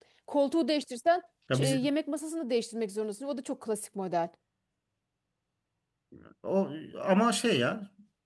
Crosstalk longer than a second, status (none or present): none